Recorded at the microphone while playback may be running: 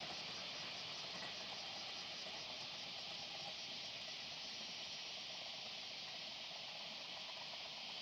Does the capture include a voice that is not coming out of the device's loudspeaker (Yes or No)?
No